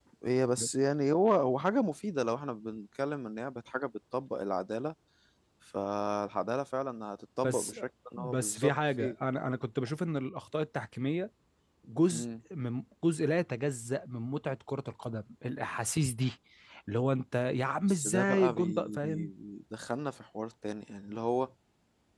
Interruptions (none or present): present